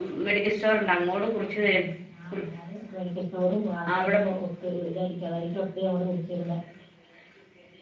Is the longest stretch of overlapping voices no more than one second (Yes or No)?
Yes